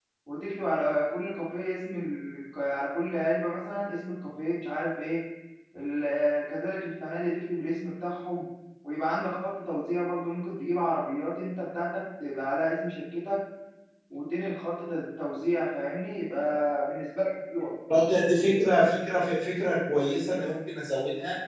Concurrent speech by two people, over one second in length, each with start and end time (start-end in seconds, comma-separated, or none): none